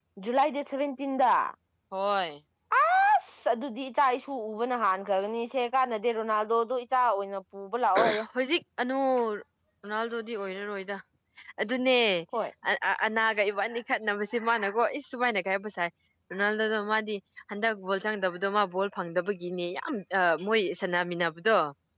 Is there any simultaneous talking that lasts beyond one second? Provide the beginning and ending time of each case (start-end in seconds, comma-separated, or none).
none